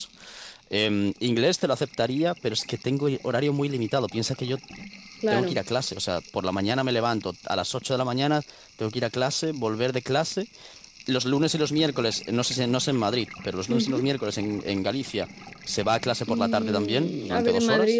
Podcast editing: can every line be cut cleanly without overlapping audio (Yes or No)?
No